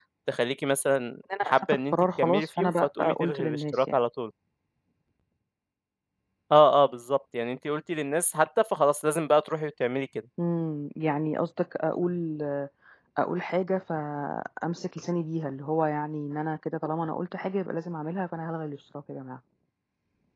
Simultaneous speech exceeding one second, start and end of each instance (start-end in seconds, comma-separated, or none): 1.4-4.0